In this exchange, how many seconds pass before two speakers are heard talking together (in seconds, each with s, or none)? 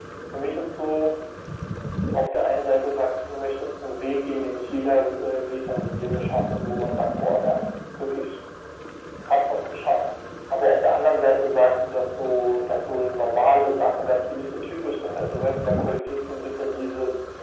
none